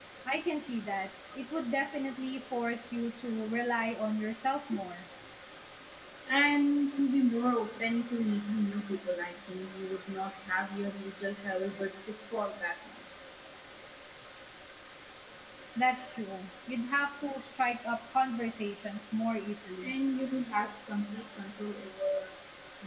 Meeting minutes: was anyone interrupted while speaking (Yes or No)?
No